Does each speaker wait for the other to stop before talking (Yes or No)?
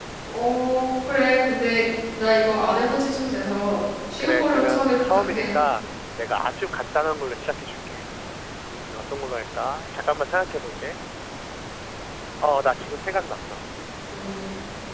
No